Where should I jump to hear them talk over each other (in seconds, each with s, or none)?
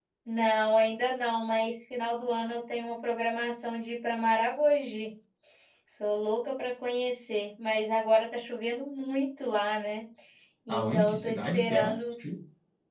10.7 s